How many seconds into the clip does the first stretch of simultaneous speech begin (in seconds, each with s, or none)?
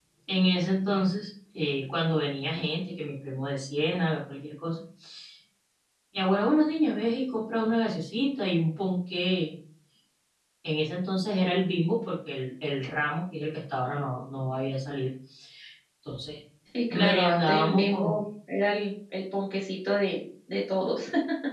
16.9 s